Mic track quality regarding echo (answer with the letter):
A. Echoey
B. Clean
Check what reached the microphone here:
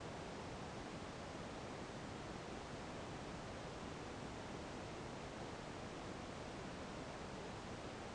B